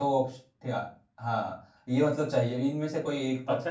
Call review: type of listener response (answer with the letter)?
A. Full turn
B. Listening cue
A